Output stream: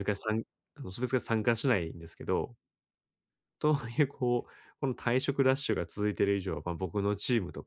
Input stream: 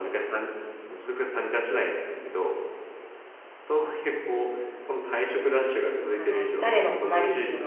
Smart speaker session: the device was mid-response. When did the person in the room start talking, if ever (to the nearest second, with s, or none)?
6 s